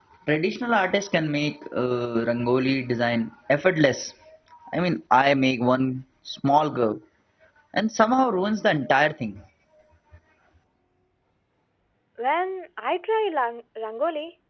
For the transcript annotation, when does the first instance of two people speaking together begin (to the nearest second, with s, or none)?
none